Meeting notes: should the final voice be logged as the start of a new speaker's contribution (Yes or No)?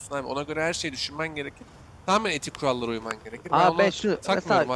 Yes